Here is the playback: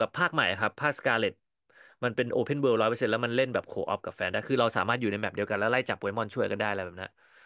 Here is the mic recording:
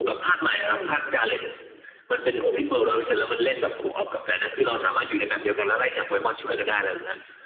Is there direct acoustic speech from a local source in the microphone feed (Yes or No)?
Yes